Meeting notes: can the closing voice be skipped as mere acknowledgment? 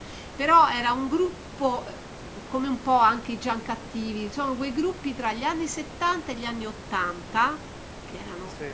Yes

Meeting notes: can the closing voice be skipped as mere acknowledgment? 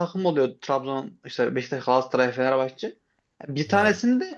Yes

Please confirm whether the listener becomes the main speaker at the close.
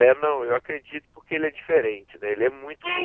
Yes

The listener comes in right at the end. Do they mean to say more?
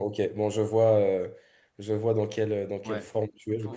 Yes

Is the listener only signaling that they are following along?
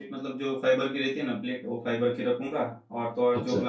Yes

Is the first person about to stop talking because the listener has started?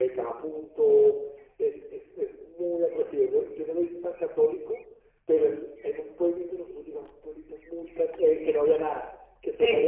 No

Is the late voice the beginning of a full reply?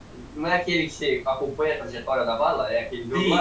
Yes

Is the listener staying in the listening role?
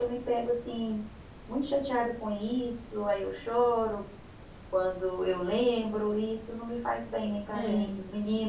Yes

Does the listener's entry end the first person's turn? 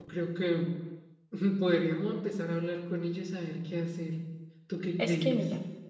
Yes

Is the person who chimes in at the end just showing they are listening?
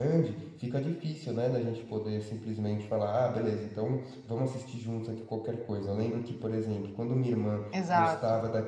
Yes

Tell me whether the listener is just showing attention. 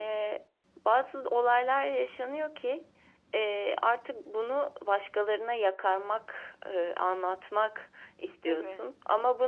Yes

